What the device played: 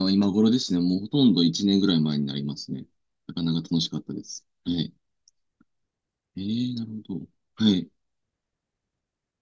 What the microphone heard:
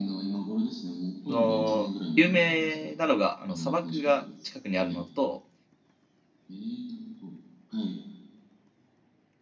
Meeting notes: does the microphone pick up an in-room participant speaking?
Yes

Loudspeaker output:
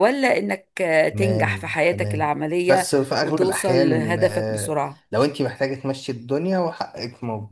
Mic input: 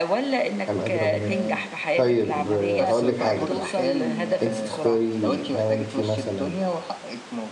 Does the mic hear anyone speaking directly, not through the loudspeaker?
Yes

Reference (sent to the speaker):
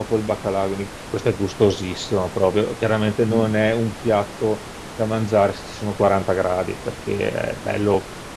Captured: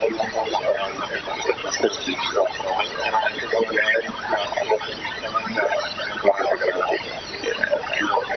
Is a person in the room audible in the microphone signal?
No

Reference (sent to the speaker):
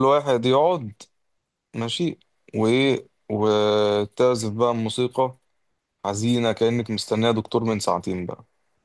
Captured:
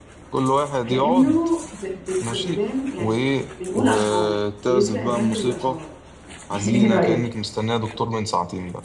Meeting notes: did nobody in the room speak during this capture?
No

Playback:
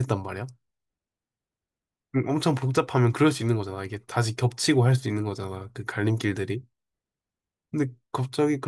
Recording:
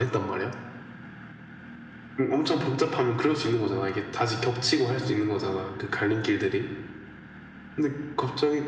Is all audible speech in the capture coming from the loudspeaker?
Yes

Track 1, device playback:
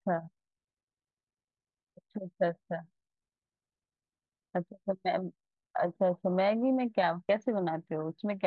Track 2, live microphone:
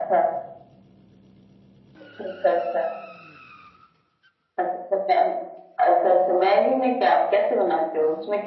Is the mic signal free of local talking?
Yes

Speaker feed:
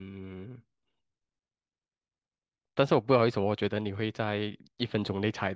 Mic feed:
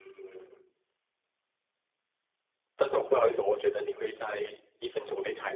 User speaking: No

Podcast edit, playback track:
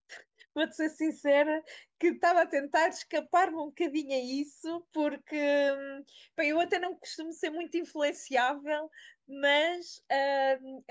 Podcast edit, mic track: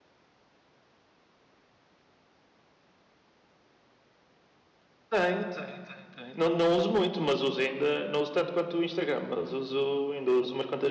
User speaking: Yes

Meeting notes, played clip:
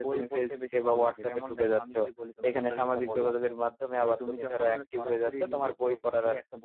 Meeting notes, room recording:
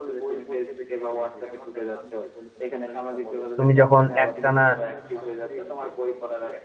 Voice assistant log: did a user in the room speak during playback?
Yes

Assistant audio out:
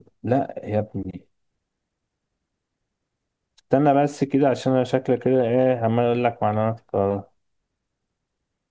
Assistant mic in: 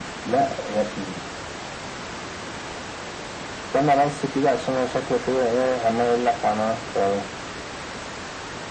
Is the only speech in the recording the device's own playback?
Yes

